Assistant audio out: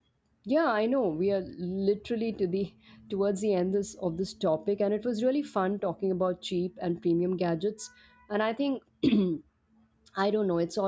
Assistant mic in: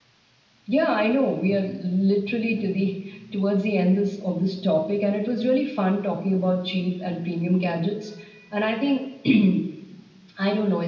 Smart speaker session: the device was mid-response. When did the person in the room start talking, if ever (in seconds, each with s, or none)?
none